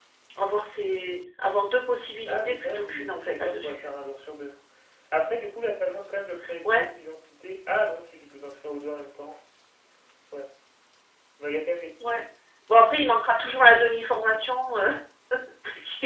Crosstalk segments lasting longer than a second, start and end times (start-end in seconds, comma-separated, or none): 2.3-3.9